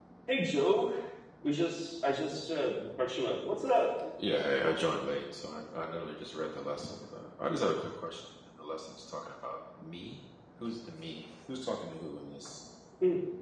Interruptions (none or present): none